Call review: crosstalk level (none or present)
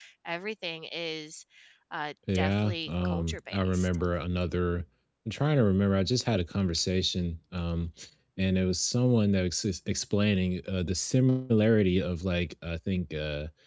present